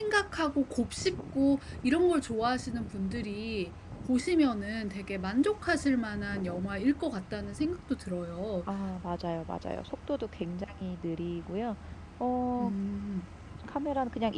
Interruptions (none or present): none